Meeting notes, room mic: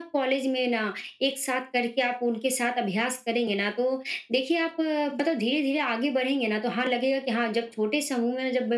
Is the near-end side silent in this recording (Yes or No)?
Yes